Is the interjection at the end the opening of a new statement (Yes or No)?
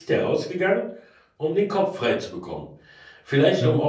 No